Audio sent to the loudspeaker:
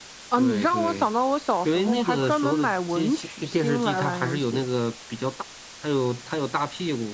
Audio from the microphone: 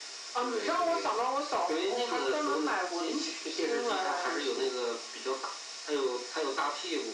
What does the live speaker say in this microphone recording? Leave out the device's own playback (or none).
none